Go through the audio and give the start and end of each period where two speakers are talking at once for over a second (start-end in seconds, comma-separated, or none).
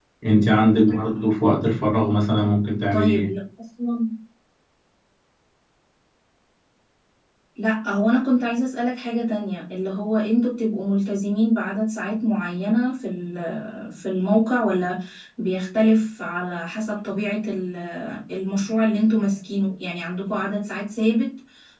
none